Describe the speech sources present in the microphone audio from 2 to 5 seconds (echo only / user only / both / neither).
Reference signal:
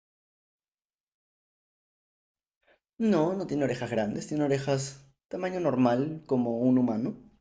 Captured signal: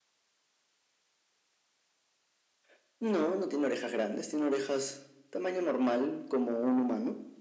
echo only